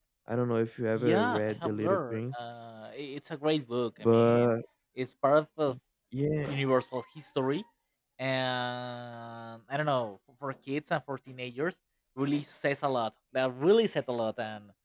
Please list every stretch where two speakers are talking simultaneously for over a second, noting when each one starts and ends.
0.9-2.3

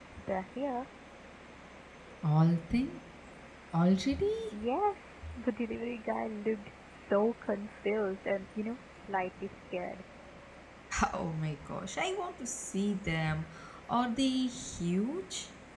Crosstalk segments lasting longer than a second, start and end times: none

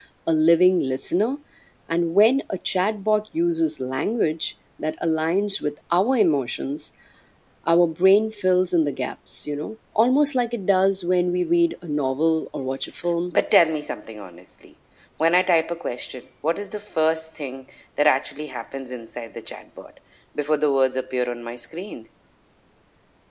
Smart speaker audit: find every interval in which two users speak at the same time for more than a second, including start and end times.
none

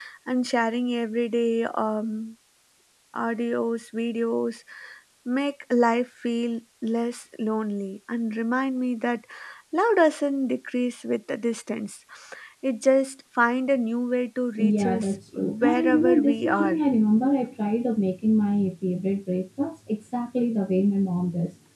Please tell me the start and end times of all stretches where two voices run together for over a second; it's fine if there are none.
14.6-16.8

